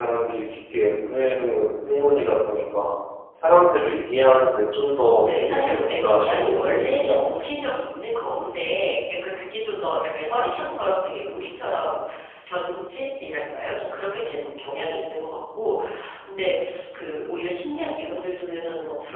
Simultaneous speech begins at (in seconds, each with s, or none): 5.2 s